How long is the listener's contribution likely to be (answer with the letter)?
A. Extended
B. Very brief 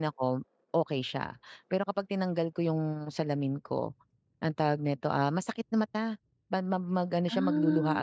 B